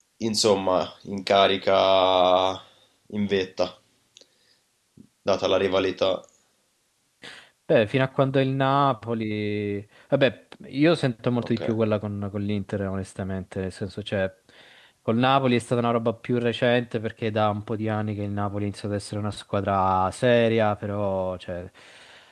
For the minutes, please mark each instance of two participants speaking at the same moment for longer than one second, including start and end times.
none

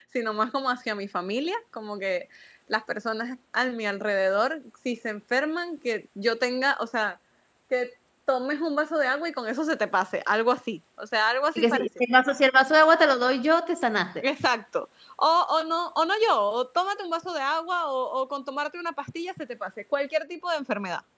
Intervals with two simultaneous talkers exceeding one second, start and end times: none

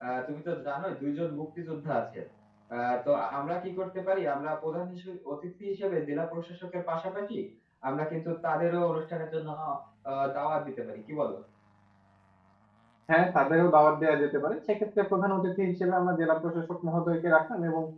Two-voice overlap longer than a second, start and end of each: none

